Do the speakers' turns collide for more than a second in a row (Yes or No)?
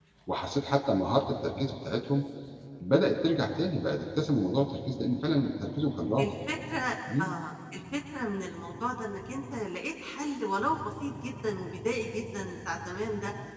No